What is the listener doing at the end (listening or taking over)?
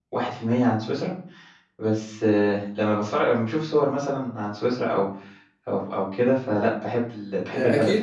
taking over